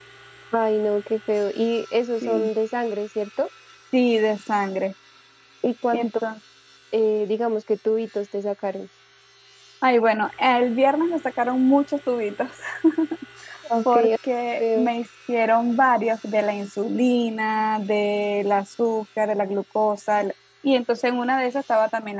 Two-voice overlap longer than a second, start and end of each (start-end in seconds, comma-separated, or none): none